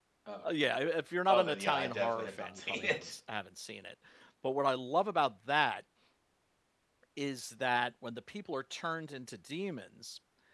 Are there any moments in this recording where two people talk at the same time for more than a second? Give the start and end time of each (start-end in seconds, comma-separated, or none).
1.3-3.1